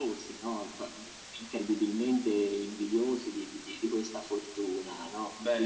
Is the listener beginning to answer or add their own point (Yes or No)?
No